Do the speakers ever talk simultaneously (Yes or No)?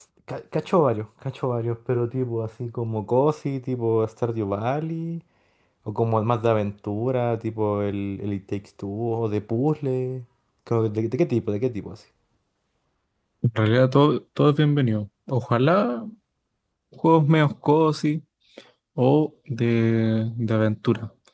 No